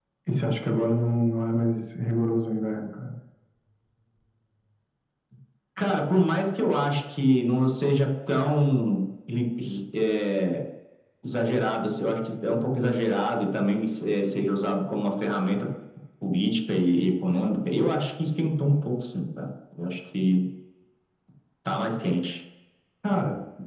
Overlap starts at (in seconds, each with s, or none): none